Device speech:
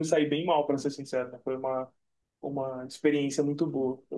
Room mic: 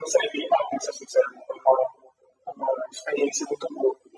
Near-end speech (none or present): none